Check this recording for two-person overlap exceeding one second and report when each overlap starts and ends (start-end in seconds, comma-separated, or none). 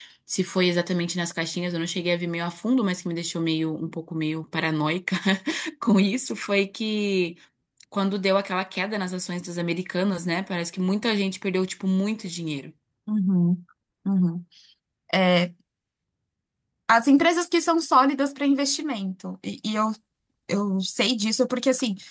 none